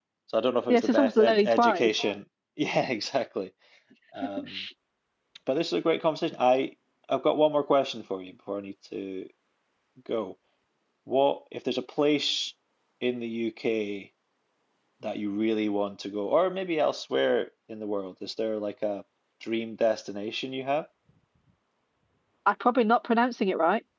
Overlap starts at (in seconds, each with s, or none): 0.7 s